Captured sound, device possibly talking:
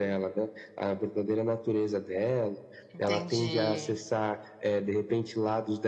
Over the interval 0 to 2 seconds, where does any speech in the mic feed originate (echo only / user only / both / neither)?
echo only